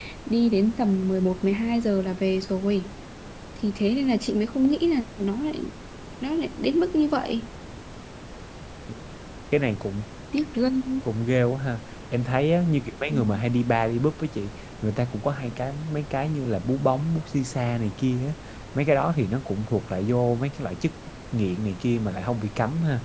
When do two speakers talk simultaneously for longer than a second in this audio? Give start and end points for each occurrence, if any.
none

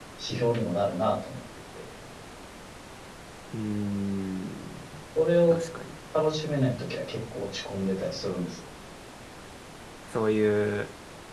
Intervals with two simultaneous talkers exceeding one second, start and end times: none

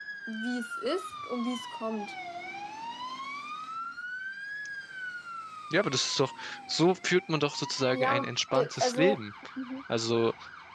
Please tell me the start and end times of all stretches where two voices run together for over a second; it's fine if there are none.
7.9-9.2

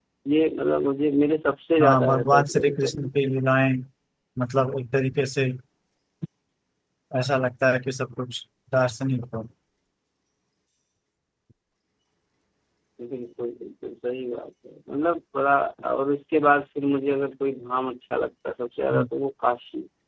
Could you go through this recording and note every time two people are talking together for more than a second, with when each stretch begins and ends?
1.8-3.1

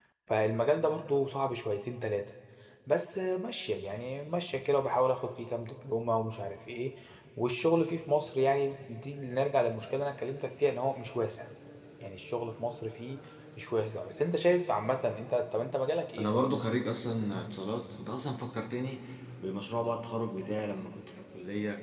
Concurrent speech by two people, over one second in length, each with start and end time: none

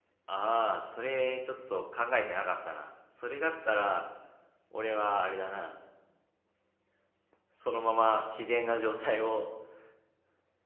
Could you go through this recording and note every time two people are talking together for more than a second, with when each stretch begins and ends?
none

